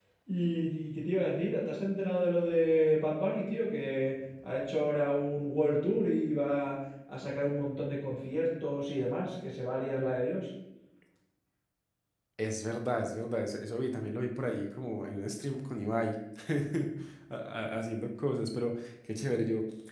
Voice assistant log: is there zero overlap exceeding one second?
Yes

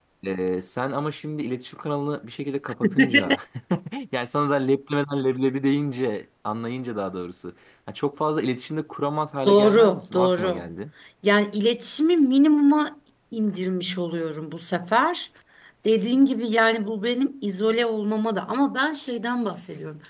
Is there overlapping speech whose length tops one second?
Yes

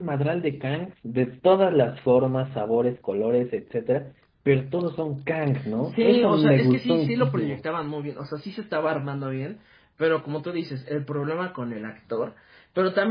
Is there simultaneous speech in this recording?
Yes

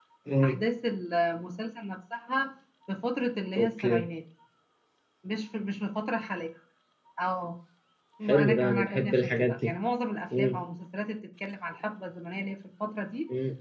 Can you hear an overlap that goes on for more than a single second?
Yes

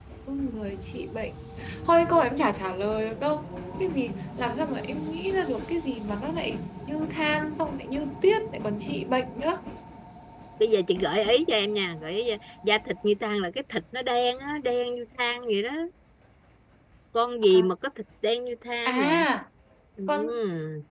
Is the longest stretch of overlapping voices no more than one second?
Yes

